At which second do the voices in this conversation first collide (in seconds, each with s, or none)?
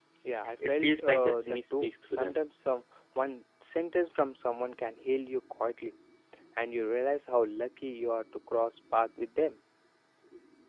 0.7 s